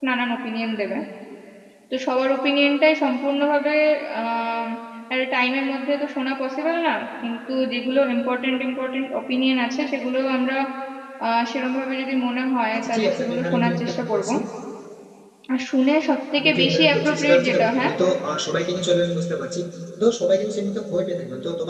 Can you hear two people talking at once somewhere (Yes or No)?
Yes